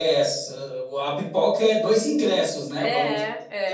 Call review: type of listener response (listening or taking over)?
taking over